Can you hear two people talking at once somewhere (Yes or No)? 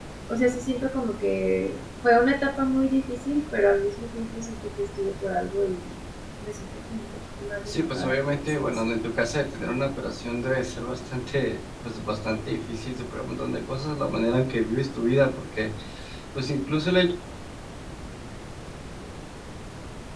Yes